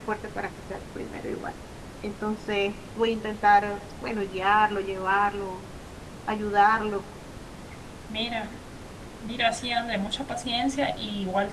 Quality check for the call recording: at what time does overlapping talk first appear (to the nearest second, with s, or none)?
none